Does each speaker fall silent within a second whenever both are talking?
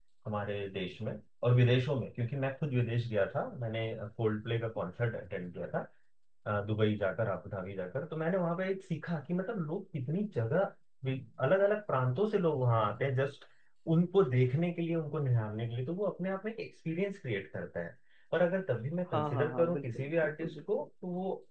No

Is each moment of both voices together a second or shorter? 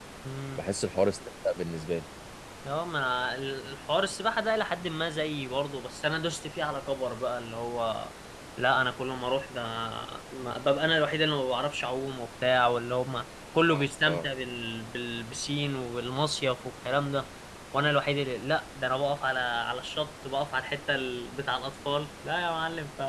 Yes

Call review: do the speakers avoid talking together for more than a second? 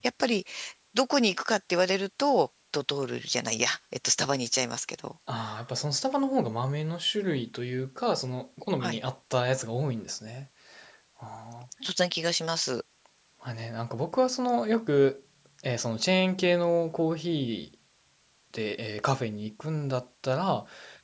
Yes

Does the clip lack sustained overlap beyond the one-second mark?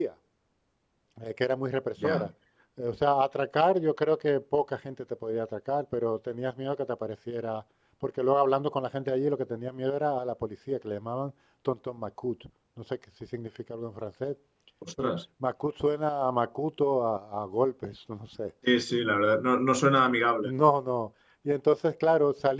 Yes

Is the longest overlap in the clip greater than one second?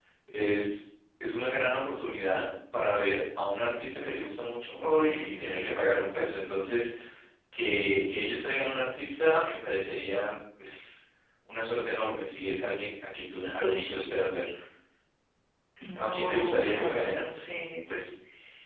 Yes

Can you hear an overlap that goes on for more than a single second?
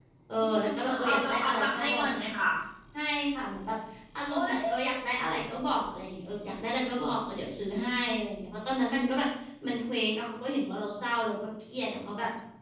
Yes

